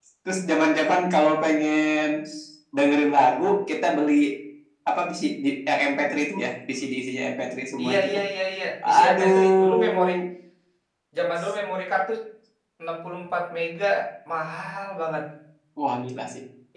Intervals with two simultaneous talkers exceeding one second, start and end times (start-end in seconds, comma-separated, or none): 8.8-10.1